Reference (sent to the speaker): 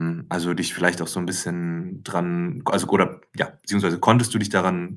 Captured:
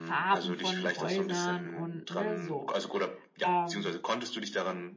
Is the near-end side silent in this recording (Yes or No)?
No